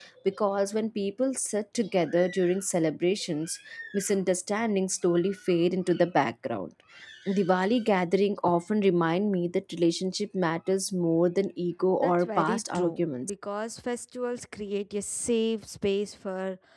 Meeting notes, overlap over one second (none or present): present